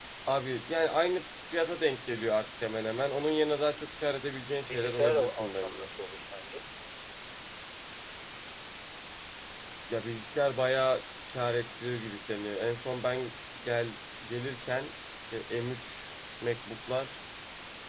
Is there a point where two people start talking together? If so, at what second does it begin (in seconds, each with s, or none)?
4.7 s